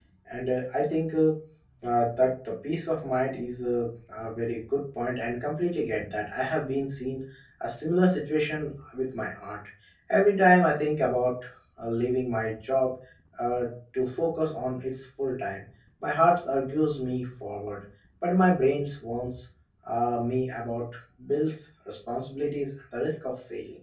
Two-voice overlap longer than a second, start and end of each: none

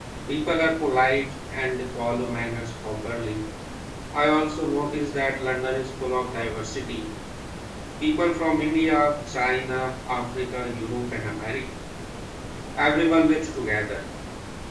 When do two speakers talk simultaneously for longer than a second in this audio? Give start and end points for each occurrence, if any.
none

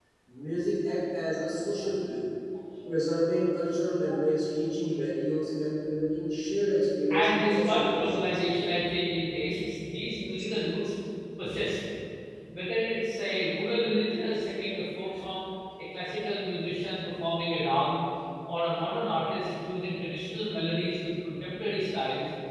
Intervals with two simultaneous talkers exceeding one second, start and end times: 7.1-8.4

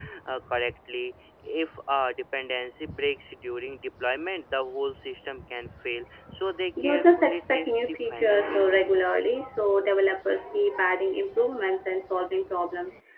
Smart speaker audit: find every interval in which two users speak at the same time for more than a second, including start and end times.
6.8-8.7

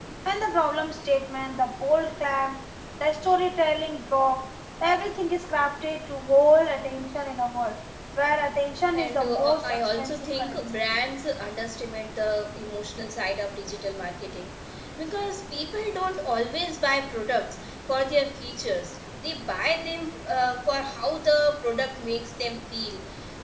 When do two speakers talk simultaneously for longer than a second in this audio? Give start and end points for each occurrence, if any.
8.9-10.6

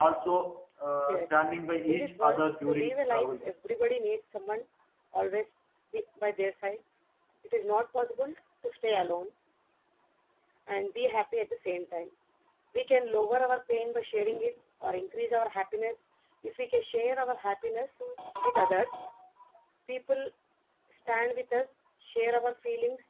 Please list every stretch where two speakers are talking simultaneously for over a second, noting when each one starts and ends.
1.9-3.5

